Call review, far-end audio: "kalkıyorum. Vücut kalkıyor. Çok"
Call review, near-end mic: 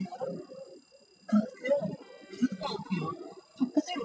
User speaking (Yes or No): No